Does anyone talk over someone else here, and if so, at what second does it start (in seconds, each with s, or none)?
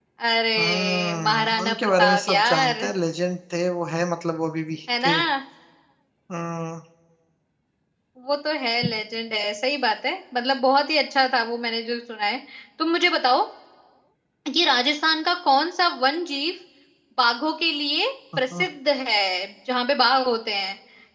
0.6 s